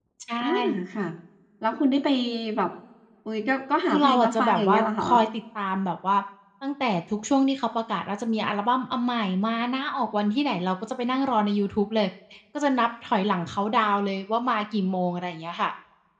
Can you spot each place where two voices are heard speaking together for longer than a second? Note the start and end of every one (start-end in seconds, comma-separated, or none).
3.9-5.1